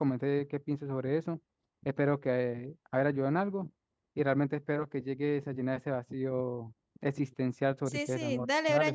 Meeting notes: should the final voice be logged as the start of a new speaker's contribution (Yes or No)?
Yes